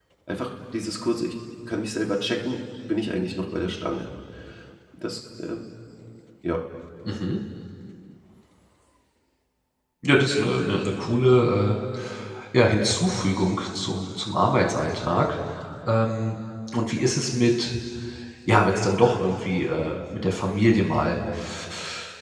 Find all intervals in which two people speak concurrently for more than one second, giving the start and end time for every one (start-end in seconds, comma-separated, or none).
none